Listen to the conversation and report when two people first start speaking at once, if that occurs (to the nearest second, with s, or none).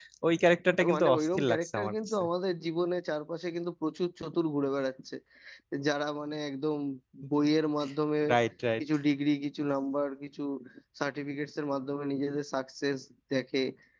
1 s